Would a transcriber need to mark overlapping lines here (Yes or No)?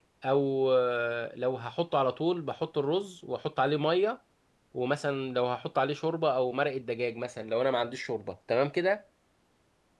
No